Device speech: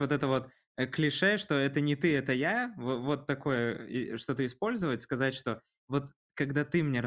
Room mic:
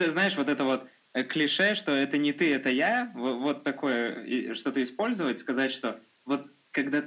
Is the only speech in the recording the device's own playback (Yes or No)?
Yes